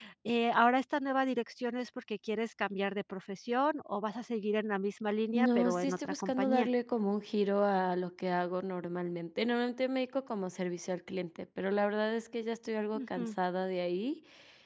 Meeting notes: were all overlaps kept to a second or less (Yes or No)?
No